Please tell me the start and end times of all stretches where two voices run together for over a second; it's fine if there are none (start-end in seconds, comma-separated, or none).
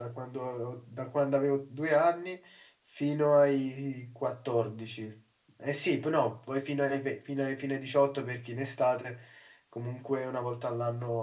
none